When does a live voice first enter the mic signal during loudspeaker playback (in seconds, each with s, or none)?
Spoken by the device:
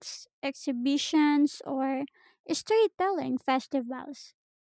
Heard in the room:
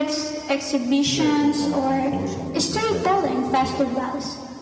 1.0 s